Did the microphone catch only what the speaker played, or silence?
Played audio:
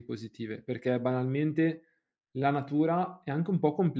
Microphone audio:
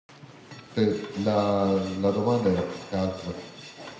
No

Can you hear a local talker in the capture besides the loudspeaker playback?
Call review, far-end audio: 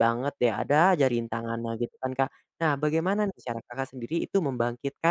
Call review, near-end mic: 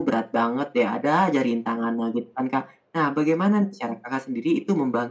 No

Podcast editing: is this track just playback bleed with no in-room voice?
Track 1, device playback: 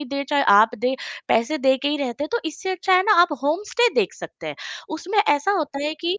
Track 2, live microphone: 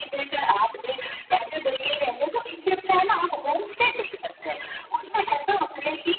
Yes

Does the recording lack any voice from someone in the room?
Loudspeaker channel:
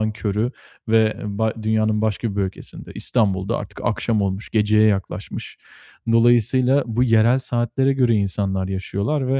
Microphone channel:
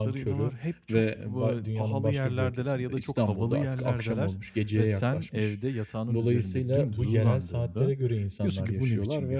No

